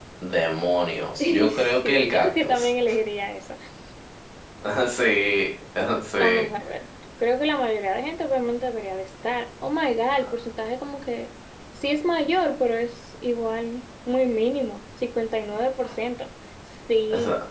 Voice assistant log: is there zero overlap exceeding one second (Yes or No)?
No